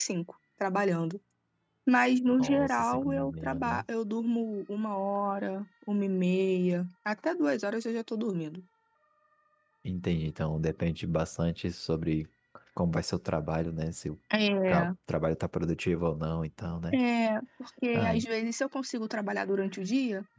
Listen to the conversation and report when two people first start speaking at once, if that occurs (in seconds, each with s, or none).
2.4 s